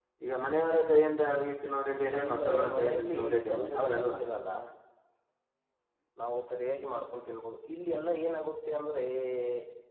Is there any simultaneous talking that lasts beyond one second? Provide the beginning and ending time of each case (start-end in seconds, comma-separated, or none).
2.2-4.1